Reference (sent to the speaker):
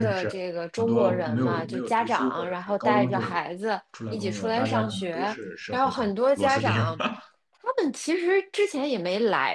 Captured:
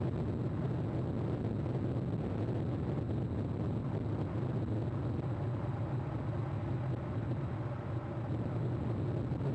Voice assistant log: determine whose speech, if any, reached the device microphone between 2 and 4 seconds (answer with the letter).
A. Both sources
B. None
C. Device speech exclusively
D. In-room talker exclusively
B